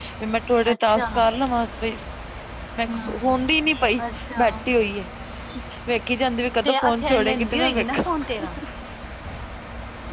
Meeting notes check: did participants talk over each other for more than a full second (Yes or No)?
Yes